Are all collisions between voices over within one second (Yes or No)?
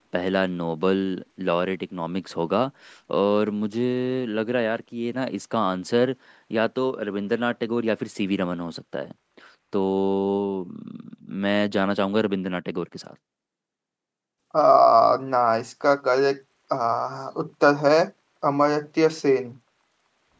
Yes